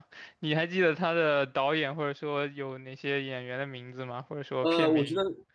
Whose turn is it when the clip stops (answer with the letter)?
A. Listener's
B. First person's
A